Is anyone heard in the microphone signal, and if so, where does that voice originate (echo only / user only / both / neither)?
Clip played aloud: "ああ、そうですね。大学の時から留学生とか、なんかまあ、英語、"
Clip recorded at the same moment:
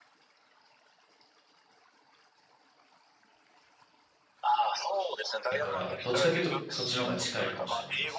both